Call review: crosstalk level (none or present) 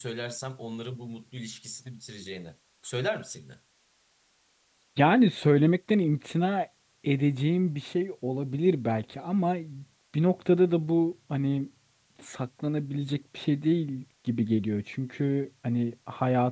none